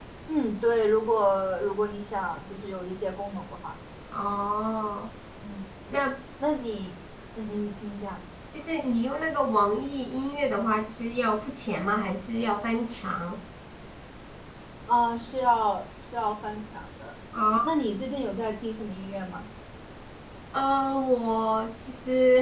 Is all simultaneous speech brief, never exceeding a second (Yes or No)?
Yes